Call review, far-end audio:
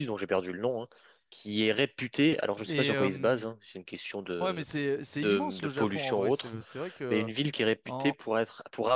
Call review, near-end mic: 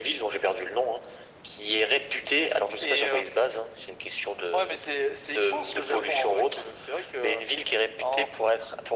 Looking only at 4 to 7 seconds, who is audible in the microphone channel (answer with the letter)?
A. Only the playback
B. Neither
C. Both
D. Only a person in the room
A